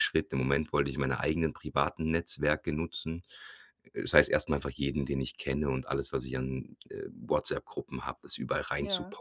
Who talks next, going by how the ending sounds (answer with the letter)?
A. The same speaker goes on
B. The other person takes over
A